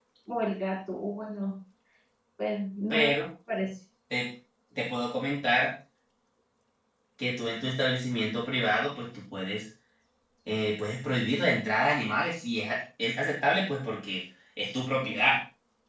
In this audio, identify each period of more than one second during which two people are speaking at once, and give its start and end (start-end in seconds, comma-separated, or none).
none